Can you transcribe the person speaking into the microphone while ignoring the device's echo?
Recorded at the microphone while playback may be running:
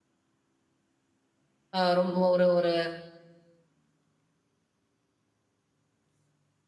அ ரொம்ப ஒரு ஒரு

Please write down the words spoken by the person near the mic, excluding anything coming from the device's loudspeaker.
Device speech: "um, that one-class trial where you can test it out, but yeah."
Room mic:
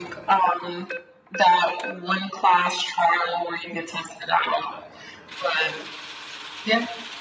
none

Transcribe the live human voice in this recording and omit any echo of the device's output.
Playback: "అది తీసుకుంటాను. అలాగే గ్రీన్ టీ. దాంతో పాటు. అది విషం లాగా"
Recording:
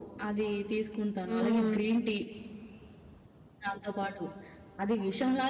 హ్మ్.

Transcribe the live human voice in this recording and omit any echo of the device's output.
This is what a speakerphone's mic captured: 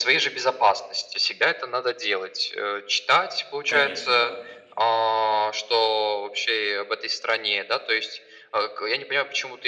Конечно, да.

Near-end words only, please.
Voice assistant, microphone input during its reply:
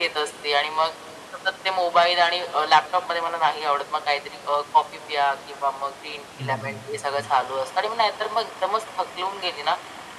हं. हं, हं, हं. हं.

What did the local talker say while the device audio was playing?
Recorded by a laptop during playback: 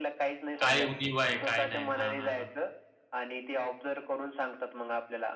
काय उणिवा काय नाही? हां, हां, हां.

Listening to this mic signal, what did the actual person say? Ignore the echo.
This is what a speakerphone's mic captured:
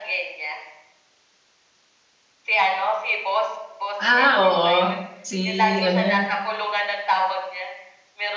Ah oo, si ano

